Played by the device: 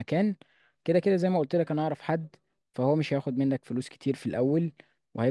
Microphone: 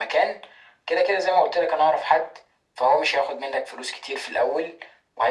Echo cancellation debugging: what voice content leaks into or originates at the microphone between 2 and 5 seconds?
echo only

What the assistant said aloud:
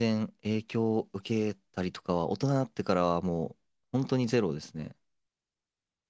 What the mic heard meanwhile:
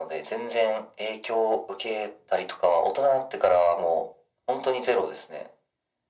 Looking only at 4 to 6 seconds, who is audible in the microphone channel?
echo only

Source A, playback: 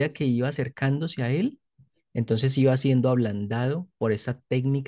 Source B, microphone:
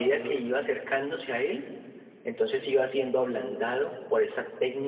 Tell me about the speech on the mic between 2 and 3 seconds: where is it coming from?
echo only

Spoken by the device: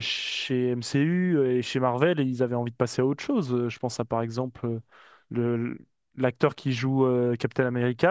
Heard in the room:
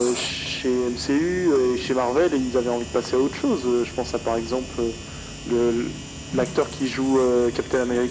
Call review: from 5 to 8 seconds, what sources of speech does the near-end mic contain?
echo only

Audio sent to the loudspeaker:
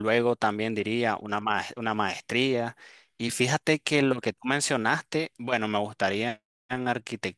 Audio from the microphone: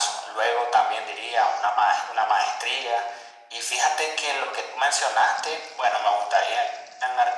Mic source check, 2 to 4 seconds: echo only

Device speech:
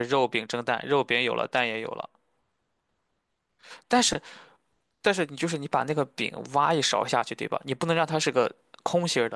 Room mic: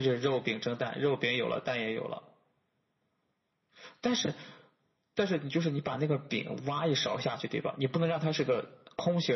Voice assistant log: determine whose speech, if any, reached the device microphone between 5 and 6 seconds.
echo only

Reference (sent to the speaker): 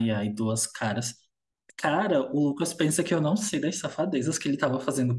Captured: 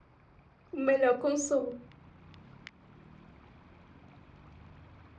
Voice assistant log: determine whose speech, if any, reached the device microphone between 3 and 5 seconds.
neither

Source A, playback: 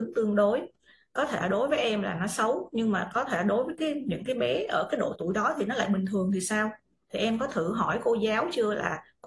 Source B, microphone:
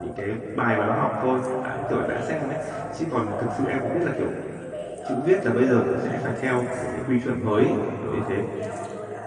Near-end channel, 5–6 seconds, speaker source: both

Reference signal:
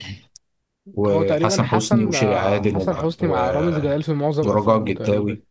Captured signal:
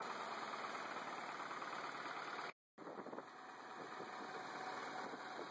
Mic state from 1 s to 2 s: neither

